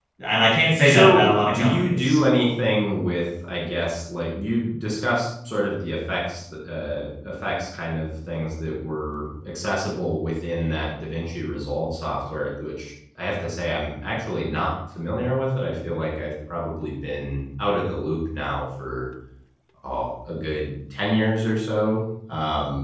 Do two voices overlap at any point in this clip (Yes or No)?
Yes